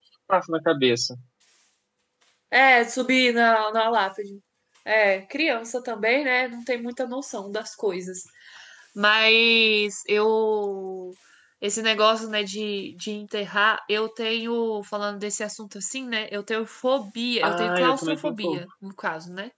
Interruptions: present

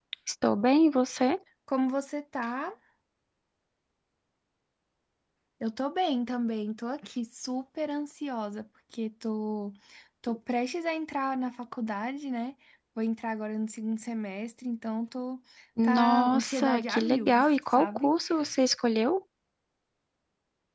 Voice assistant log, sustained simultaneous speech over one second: present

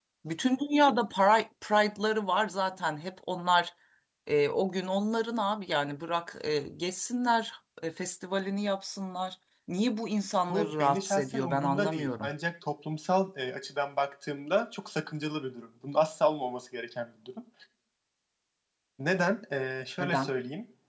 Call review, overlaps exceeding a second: present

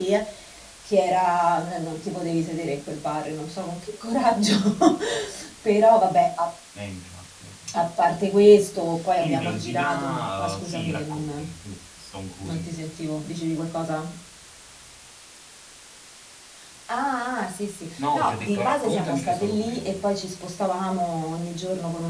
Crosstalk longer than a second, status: present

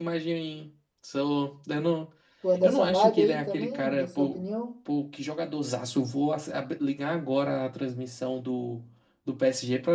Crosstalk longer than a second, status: present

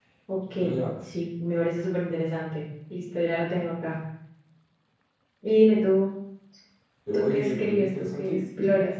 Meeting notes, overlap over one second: present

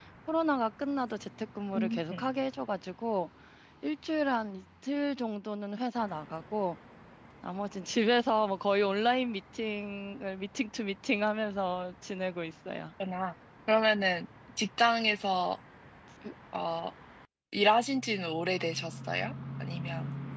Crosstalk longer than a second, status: none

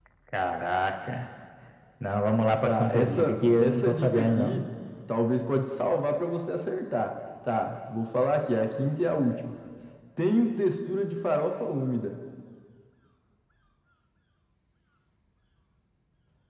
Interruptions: present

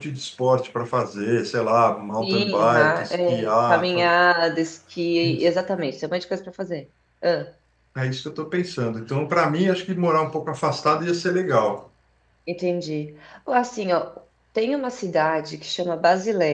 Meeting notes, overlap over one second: present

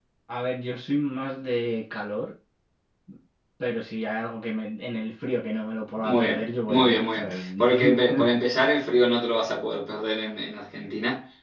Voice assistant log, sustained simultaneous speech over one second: present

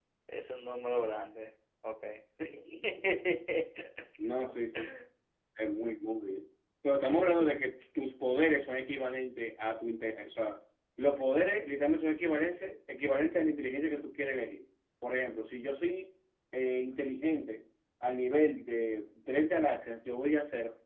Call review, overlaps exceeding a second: none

